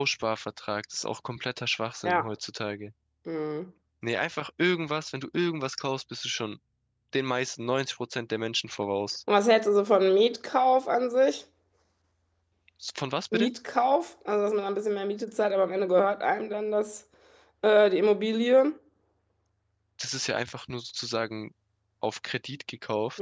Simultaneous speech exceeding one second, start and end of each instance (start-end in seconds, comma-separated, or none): none